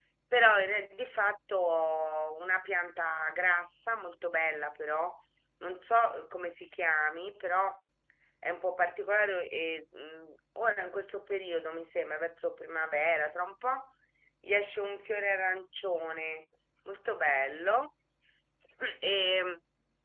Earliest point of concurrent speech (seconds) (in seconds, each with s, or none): none